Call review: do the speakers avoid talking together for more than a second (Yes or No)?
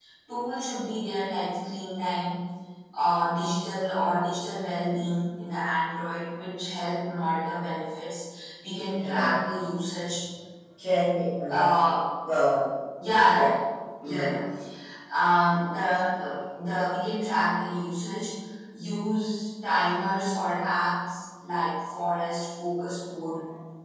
Yes